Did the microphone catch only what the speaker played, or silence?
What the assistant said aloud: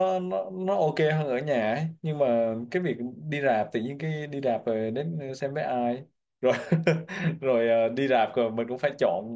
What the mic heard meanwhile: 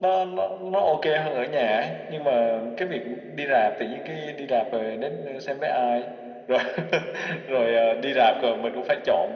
Yes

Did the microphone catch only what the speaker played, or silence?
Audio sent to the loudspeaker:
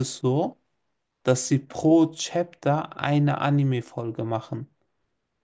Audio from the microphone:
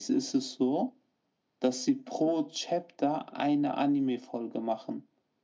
Yes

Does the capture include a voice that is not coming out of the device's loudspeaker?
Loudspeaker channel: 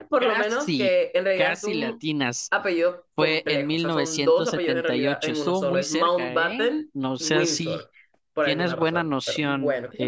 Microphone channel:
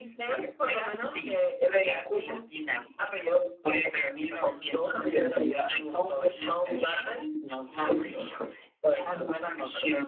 Yes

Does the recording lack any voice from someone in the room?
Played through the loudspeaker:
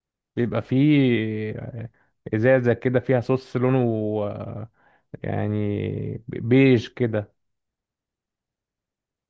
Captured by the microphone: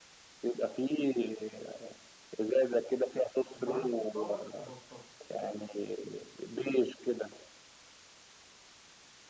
No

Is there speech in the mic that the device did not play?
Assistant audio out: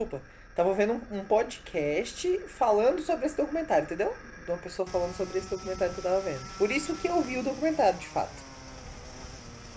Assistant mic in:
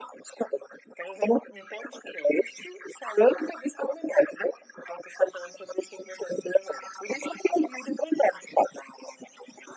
No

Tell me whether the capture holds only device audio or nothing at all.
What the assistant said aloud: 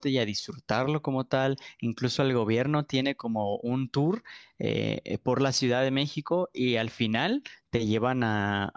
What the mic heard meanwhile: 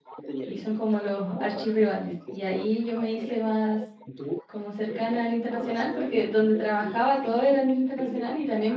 No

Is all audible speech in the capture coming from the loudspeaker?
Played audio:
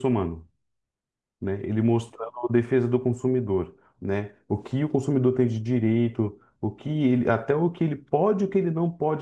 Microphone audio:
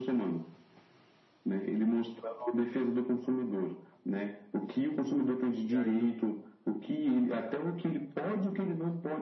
No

